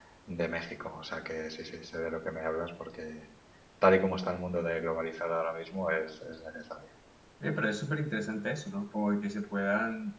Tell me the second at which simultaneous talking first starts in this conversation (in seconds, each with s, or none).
none